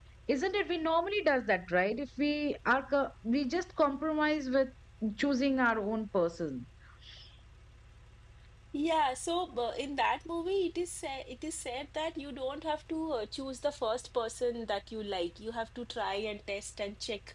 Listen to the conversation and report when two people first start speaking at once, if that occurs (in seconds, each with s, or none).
none